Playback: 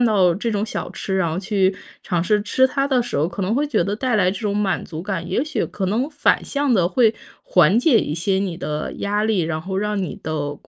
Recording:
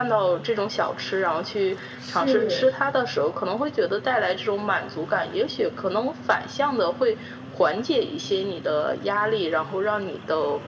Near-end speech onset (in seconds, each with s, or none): 2.0 s